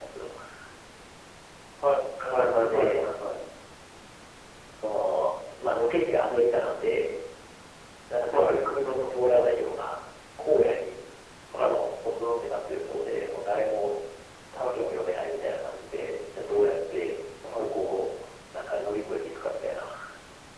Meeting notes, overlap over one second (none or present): none